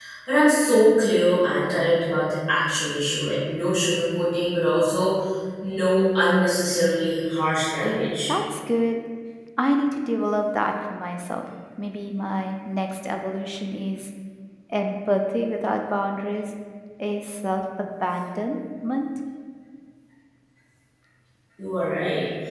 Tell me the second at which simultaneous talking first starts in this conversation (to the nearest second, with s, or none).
none